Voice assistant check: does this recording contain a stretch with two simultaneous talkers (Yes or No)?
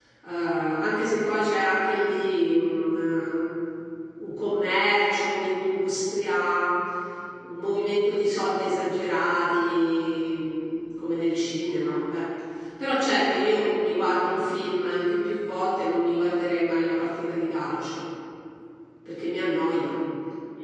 No